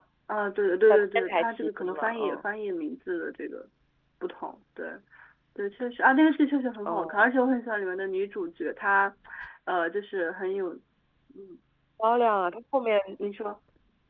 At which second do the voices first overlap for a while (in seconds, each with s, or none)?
0.9 s